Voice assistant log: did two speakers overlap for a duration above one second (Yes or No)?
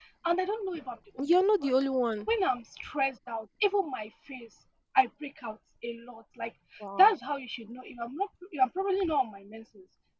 No